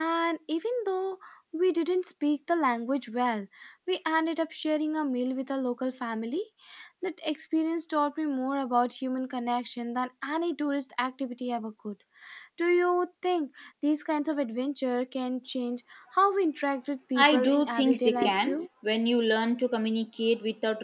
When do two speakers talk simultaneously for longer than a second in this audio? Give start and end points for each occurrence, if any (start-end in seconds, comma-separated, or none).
17.2-18.6